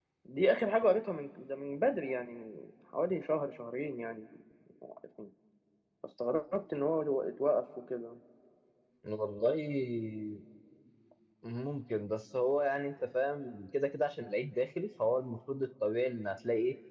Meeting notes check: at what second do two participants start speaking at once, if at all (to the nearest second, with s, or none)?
none